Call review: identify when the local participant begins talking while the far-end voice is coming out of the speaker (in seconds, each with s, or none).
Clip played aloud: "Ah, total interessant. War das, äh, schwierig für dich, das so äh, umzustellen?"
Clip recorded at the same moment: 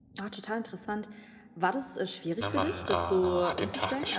2.4 s